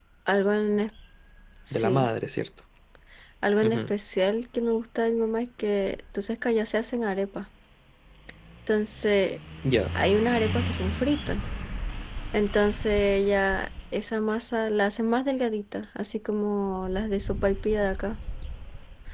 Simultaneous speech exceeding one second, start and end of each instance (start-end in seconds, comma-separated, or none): none